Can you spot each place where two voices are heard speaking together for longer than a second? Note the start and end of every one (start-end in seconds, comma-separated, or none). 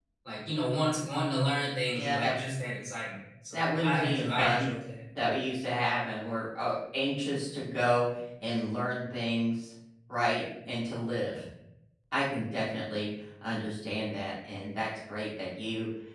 3.5-4.7